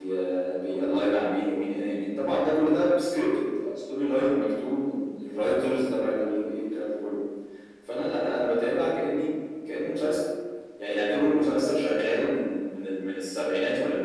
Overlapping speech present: No

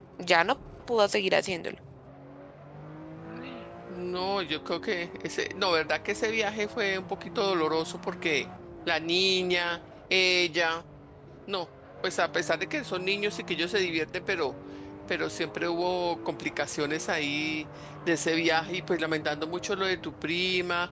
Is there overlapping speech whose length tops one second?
No

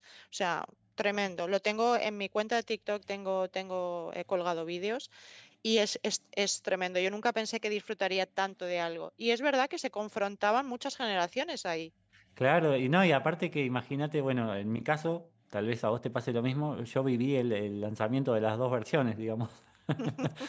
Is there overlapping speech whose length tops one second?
No

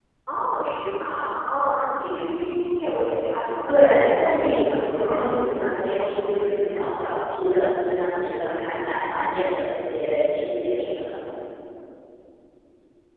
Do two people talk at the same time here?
Yes, from 3.7 s

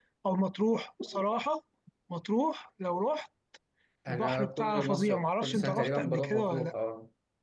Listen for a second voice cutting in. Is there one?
Yes, from 4.1 s

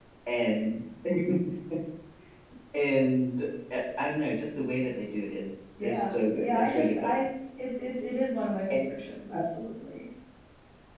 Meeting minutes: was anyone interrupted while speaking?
Yes, from 5.8 s

